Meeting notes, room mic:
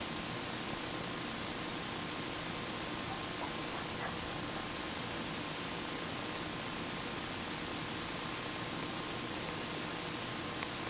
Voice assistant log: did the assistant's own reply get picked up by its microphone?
No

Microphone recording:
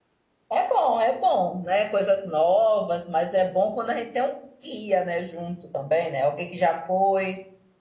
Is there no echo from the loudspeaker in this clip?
Yes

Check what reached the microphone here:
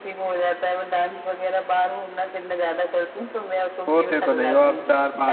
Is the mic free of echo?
No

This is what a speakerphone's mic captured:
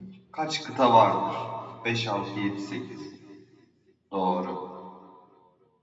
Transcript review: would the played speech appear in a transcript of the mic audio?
No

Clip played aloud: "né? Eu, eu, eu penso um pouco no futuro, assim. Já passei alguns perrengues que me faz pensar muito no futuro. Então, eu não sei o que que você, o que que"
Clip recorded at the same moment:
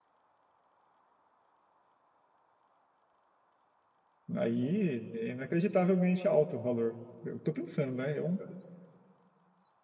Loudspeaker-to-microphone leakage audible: No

